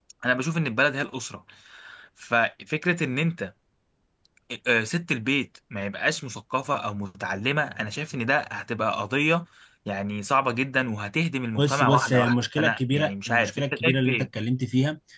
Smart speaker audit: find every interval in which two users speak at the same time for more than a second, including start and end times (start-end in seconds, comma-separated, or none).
11.6-14.3